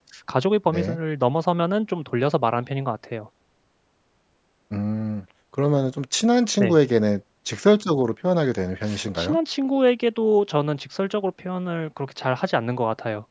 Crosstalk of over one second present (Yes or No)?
No